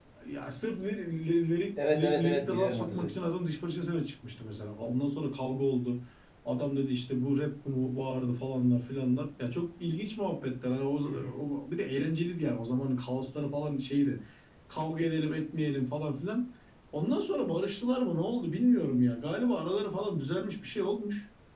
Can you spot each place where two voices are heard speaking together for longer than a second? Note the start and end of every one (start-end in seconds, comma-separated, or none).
1.9-3.1